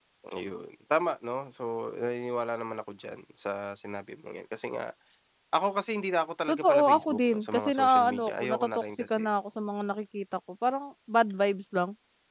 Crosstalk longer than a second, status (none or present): present